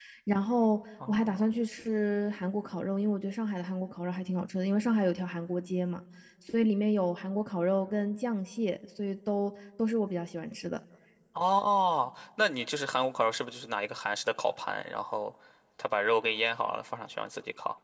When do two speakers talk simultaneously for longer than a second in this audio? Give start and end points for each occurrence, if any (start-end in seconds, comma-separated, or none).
none